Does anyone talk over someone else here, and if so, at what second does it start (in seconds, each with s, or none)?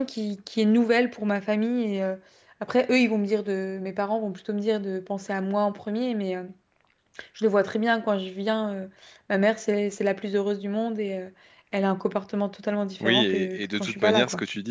13.0 s